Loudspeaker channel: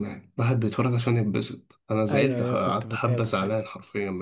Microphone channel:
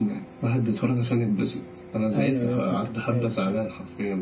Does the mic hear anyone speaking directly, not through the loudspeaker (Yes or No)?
No